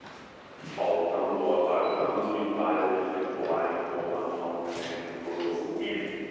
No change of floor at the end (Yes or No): No